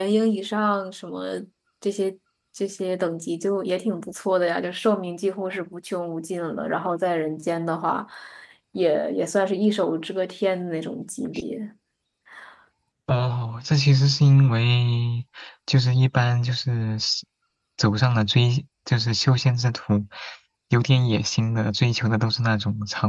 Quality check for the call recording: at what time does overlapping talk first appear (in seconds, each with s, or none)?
none